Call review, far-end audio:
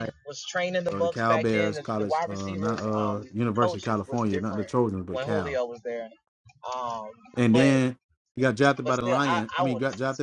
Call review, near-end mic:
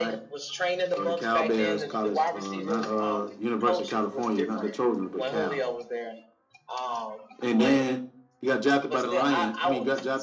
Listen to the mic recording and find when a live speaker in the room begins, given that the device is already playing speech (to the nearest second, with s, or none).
none